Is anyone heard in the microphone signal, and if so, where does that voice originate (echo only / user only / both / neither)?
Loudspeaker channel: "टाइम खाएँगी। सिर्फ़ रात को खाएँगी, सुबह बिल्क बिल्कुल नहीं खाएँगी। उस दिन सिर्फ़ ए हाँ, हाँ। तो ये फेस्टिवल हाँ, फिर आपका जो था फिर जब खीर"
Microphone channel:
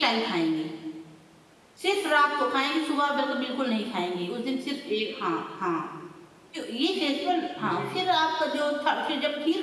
both